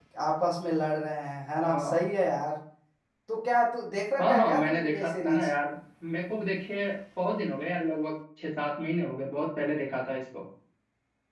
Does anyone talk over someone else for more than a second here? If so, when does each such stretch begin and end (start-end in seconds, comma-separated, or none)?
4.2-5.5